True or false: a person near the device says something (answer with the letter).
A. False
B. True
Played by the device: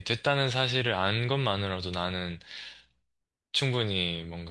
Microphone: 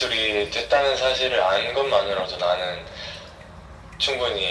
A